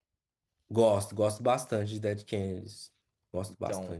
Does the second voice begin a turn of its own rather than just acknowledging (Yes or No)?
Yes